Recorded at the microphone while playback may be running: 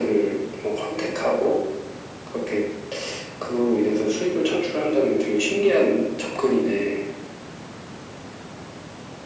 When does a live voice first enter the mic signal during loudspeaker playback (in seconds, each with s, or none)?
none